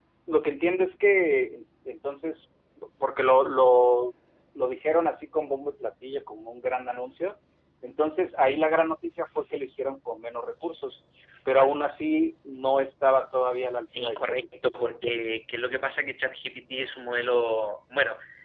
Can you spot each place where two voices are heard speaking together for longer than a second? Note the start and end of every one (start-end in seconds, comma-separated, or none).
14.0-15.2